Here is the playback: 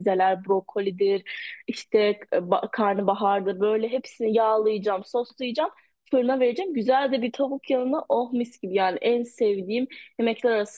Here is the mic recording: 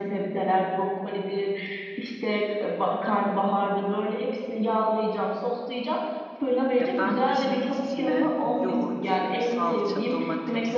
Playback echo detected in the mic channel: Yes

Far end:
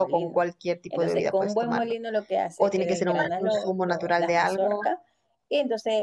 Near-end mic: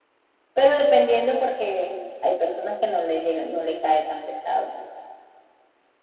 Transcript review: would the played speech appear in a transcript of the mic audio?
No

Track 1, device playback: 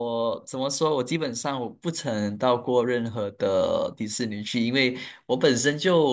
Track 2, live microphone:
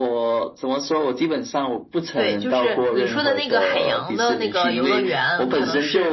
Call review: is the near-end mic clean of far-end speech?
No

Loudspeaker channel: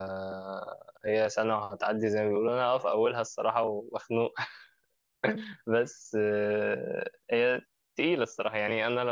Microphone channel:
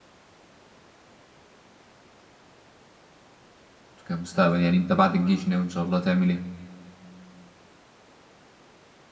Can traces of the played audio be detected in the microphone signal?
No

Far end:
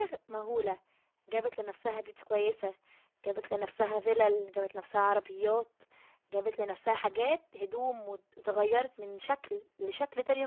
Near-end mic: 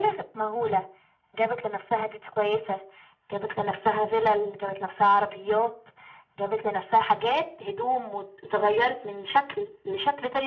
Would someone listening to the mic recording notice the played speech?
Yes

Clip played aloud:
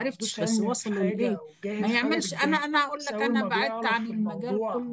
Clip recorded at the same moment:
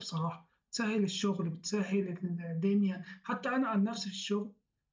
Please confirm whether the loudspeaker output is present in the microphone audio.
No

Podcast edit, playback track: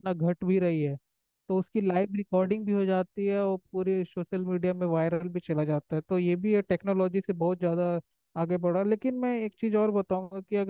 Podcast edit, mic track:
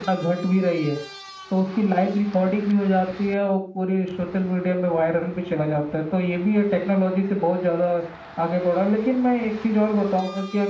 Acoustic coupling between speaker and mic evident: Yes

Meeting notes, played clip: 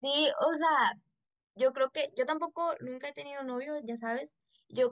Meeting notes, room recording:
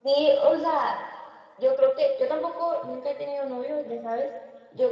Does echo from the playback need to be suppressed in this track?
Yes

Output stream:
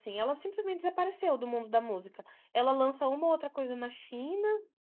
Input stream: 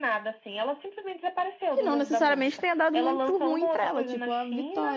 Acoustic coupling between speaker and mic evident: Yes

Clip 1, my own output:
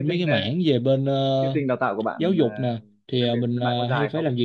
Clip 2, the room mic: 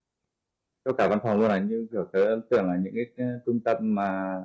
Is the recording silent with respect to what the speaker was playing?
Yes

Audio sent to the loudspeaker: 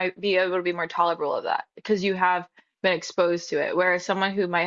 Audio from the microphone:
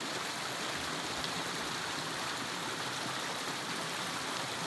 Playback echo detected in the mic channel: No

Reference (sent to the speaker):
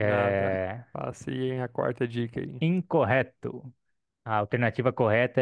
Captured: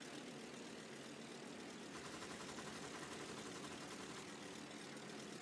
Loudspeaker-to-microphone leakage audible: No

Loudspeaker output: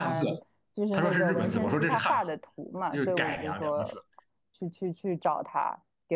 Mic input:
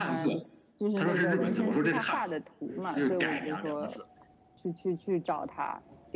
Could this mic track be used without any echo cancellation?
No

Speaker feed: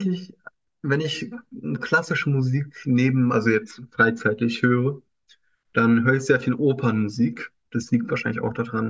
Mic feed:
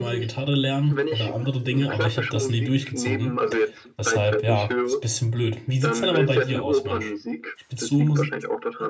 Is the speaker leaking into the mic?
Yes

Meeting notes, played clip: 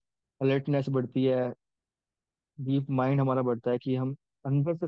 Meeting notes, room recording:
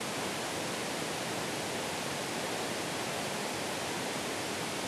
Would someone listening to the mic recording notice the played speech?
No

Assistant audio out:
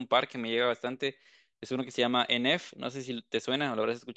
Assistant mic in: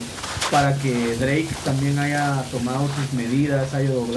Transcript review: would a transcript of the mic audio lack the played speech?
Yes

